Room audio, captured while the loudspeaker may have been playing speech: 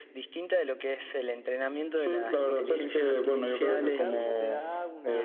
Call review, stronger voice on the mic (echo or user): echo